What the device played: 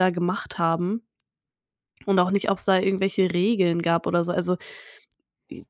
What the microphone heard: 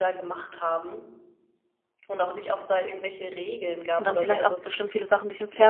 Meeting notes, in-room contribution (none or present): present